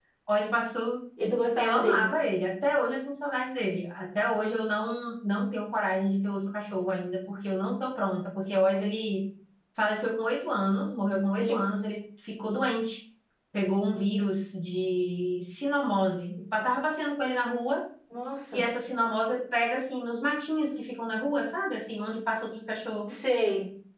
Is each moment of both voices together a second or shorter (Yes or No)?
Yes